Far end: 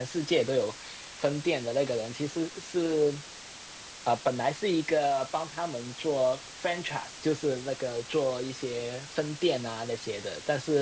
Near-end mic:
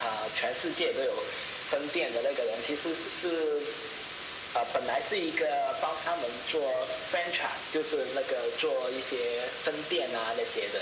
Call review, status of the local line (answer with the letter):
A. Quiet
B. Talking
A